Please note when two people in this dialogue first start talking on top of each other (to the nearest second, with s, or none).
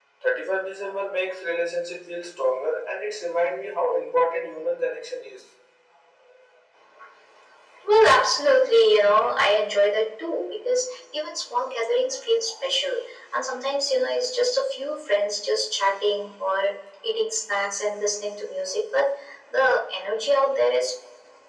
none